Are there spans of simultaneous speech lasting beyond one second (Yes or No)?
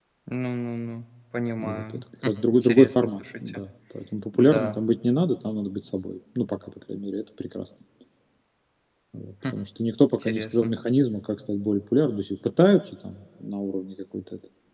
Yes